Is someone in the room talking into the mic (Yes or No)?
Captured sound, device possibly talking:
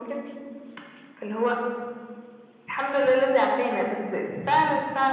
No